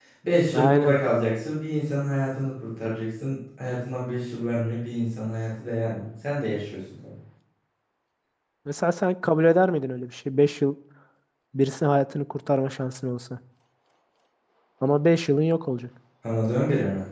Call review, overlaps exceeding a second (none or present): none